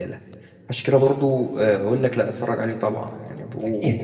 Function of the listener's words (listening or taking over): taking over